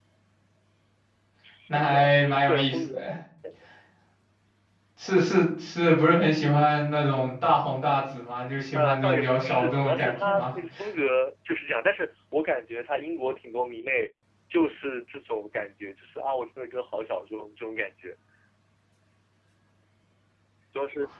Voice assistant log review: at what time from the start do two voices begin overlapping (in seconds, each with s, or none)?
1.7 s